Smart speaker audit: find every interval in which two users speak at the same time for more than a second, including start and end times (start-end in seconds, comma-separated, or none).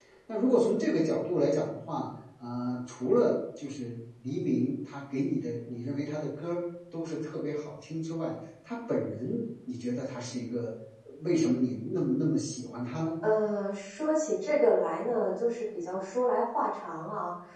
none